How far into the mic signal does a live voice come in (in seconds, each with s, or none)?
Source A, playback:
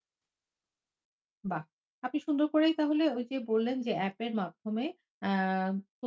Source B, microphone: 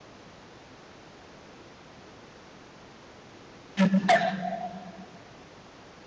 3.8 s